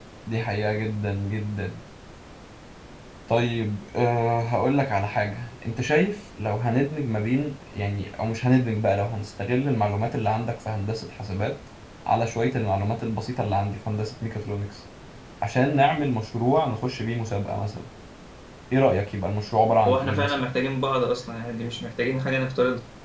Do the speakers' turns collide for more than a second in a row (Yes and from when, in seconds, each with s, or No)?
No